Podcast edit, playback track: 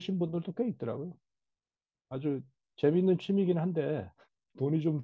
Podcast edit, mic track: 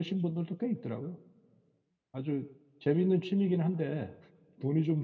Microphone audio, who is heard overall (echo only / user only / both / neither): echo only